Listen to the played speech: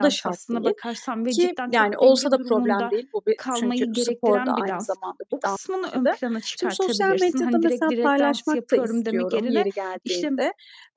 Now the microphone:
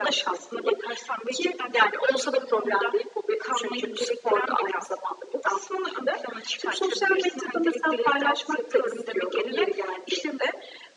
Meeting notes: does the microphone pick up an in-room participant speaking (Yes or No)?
No